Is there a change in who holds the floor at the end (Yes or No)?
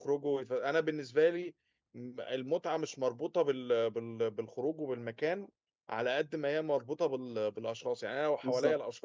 No